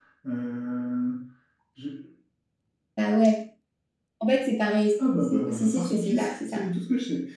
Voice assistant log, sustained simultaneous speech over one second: present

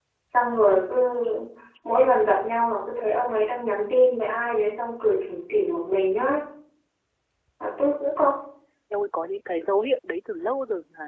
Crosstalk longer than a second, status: none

